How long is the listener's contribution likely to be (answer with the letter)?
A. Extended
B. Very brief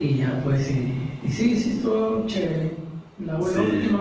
B